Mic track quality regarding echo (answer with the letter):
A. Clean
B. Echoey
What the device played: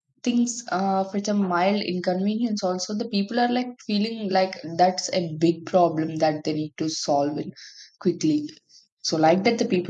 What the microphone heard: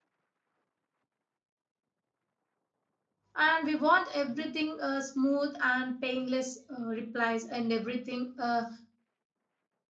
A